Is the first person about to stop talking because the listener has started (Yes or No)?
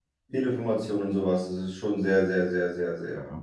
Yes